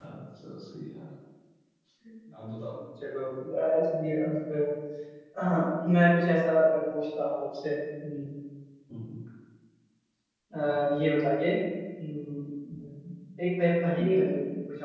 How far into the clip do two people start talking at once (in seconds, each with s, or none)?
none